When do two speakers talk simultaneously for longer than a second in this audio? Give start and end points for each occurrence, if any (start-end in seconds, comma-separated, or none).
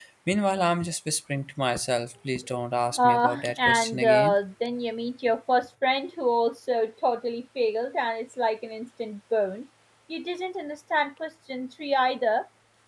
3.0-4.4